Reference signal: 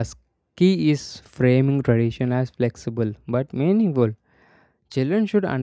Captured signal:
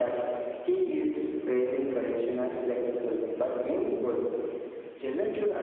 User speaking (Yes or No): No